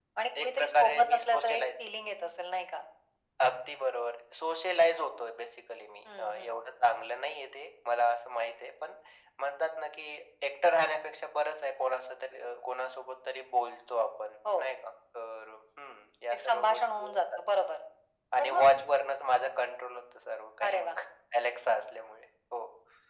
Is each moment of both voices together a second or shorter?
No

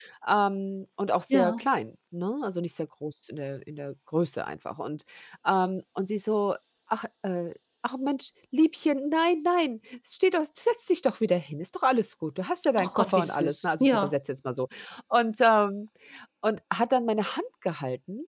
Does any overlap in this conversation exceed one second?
Yes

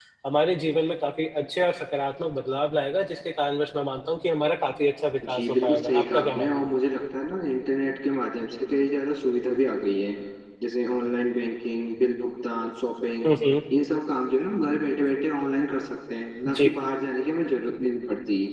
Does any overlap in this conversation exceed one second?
Yes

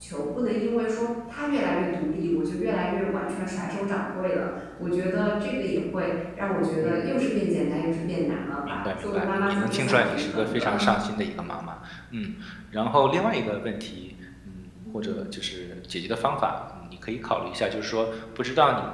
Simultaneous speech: Yes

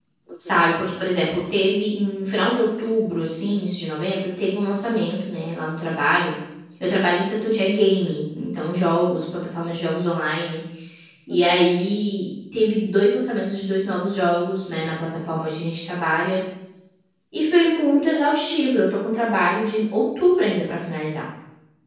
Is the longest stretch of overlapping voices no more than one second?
No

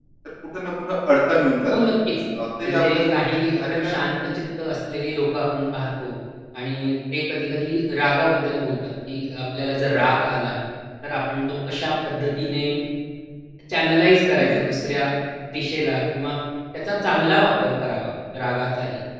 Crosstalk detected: Yes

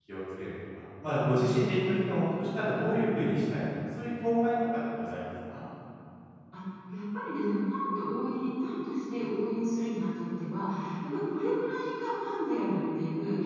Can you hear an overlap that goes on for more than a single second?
No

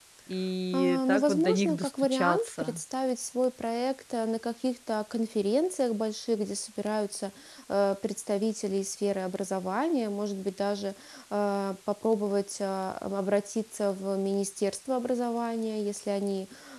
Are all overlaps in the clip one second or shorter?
No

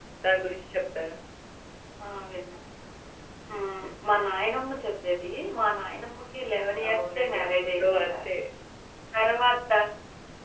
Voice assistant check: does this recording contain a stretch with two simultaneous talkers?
Yes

